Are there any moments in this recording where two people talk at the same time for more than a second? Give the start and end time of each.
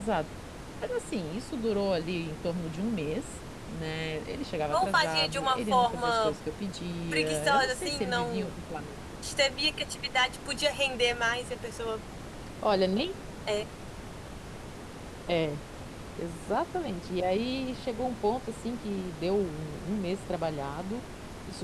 4.7-6.3, 7.1-8.5

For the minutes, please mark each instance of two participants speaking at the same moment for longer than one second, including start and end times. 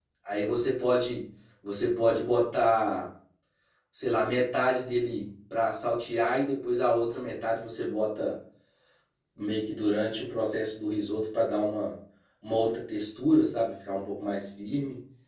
none

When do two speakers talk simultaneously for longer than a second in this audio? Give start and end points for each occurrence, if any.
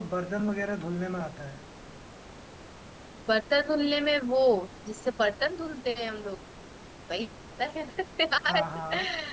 none

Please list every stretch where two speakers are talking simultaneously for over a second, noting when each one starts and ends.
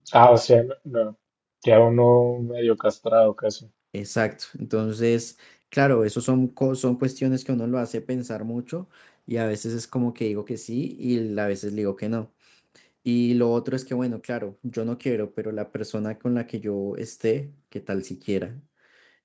none

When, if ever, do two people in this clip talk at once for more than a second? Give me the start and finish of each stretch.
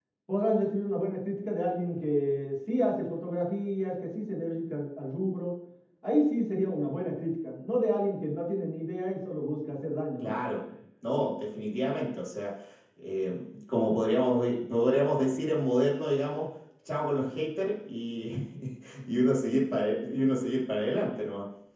none

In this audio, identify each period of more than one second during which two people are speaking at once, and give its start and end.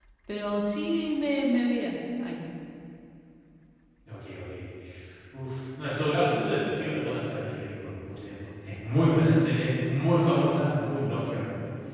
none

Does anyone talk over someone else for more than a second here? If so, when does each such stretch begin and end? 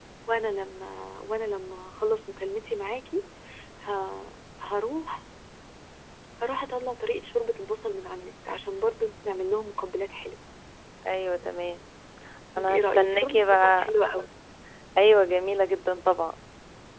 12.6-13.9

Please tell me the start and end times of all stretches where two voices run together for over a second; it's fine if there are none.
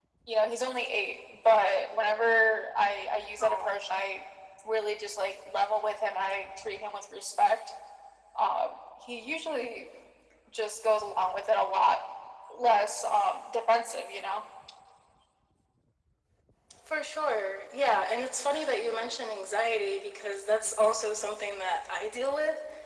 none

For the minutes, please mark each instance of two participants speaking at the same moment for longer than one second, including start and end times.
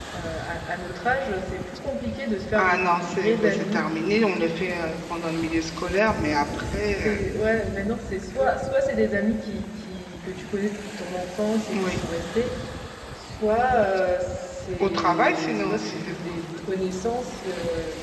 2.5-3.8, 14.8-16.2

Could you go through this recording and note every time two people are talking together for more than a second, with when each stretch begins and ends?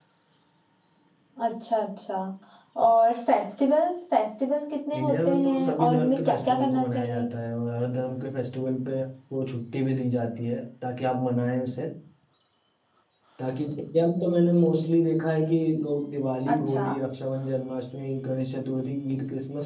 5.0-7.3

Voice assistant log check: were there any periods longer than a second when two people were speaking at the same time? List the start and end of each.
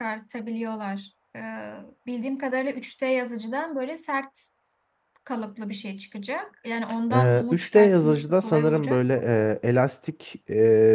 7.1-9.0

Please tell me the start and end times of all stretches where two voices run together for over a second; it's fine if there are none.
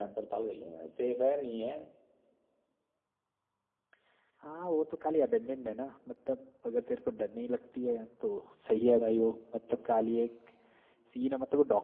none

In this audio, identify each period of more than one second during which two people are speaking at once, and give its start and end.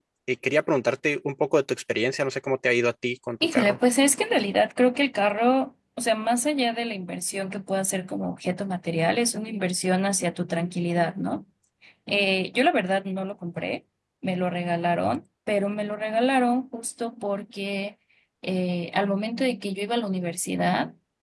none

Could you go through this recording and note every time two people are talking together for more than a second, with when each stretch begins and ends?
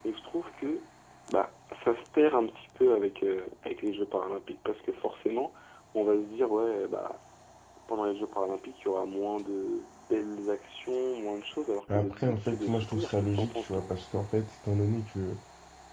11.9-13.9

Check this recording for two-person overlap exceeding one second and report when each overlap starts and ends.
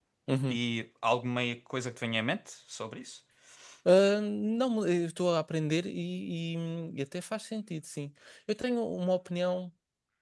none

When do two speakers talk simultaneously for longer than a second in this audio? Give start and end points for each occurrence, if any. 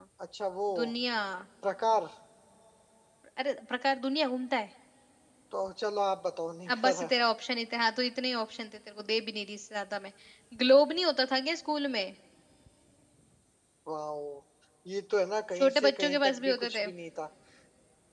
15.6-16.9

